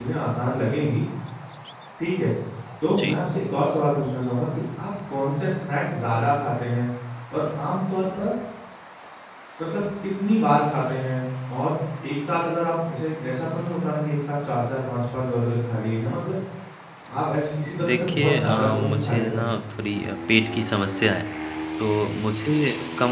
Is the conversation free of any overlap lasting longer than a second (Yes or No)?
No